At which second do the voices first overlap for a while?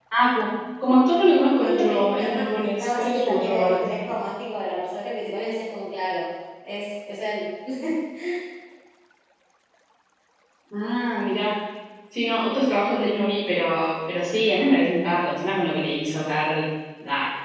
1.6 s

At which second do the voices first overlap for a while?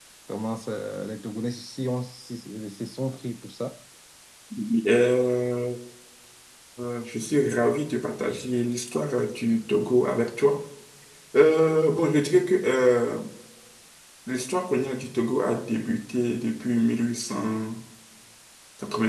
none

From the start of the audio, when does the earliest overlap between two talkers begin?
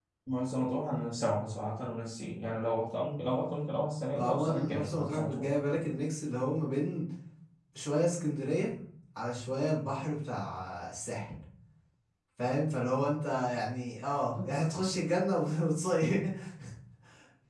4.1 s

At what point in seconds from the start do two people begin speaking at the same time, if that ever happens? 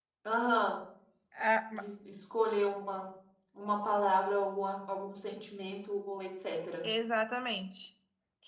none

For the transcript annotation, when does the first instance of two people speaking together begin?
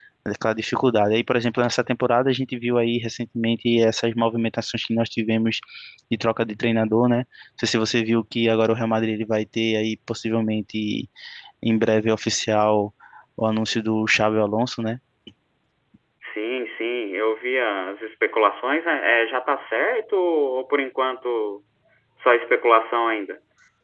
none

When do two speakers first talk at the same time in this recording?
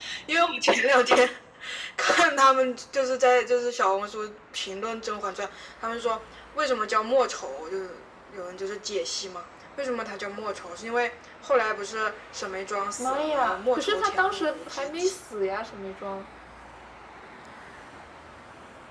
13.0 s

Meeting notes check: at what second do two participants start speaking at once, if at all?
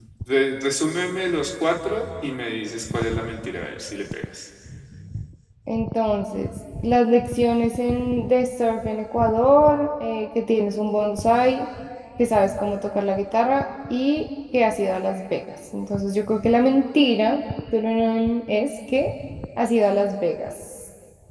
none

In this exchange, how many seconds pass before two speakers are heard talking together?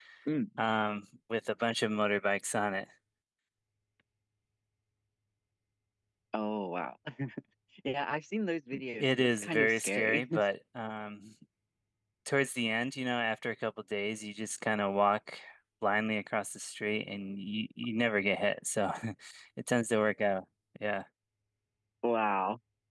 8.7 s

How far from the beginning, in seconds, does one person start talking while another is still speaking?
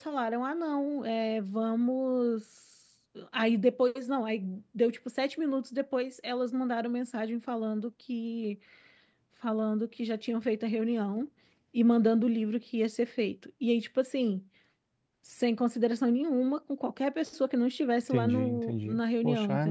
18.1 s

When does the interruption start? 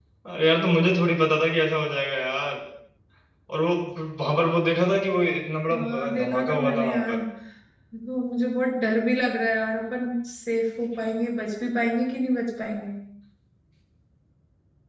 5.7 s

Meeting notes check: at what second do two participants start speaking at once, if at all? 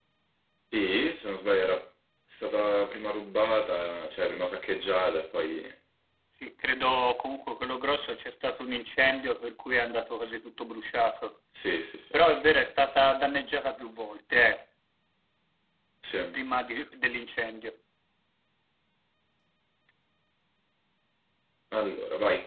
none

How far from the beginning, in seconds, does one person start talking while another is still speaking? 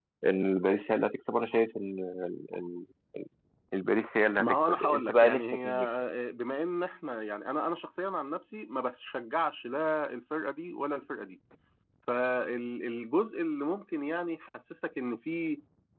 4.4 s

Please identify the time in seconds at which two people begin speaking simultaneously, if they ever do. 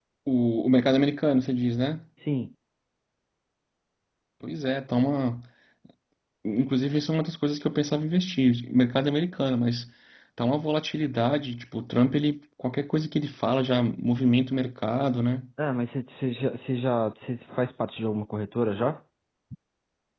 none

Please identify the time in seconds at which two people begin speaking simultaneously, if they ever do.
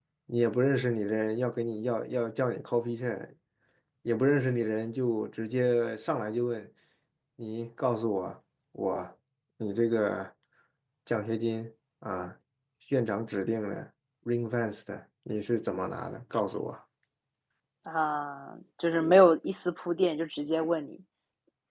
none

